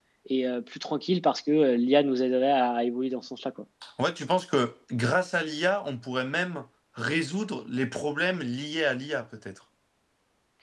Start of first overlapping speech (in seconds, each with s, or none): none